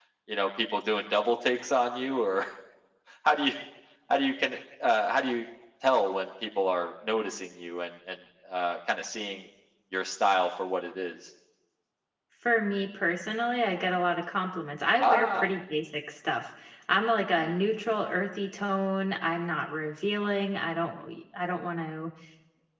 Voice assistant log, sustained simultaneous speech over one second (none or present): none